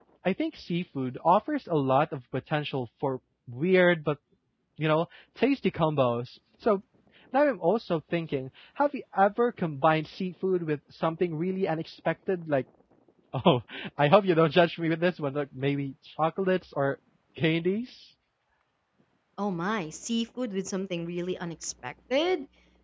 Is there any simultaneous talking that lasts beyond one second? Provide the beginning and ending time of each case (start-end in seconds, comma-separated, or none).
none